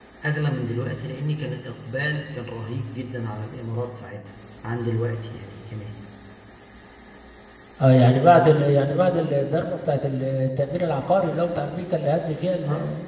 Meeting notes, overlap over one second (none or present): none